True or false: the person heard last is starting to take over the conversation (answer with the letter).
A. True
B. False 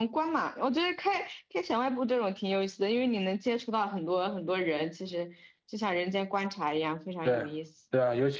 A